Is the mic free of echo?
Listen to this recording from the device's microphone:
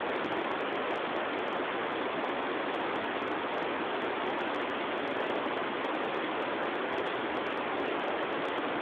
Yes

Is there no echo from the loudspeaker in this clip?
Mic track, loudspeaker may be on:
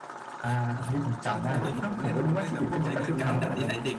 No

